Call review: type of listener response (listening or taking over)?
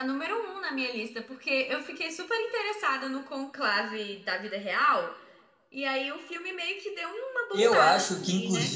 taking over